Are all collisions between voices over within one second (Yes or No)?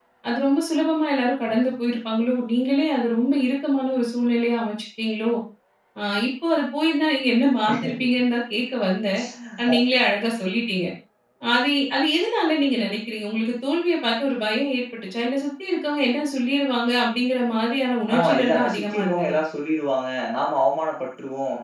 No